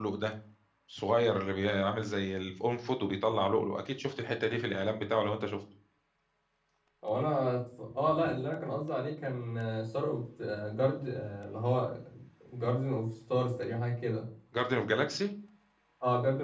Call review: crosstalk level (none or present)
none